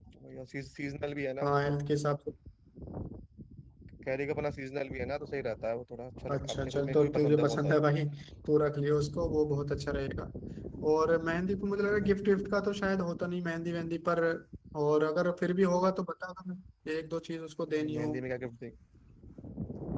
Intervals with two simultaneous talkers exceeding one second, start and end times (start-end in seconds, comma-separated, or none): 6.3-7.8